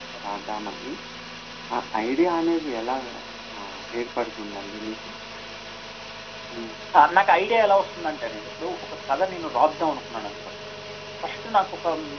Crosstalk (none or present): none